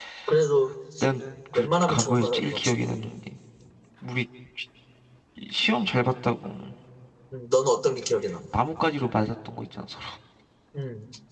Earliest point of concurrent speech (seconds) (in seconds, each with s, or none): 1.6 s